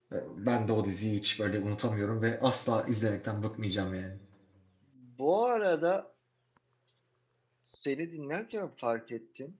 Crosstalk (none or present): none